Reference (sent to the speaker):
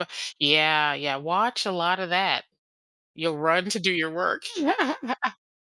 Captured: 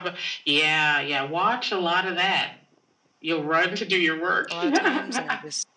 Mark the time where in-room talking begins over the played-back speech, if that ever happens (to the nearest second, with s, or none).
5 s